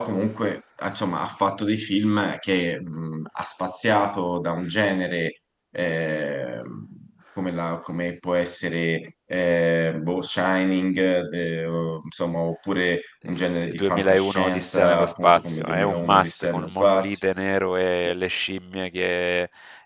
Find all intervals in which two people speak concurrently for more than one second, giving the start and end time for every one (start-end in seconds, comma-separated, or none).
13.3-17.2